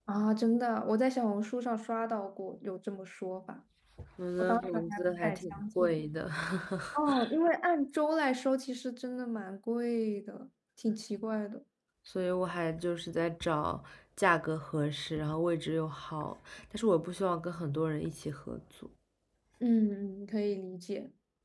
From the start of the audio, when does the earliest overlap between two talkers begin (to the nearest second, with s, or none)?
4 s